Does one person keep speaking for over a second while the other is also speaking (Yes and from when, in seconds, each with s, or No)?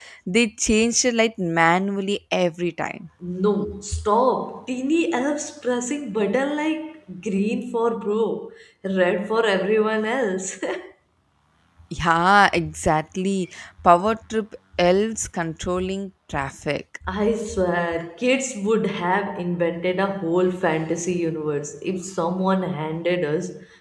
No